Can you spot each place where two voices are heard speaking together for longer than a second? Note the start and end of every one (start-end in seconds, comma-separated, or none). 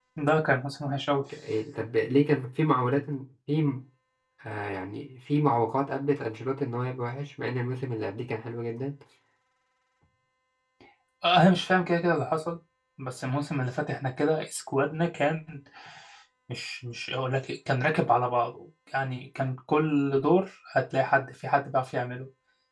none